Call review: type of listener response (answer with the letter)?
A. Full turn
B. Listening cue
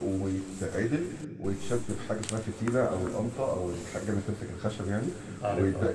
B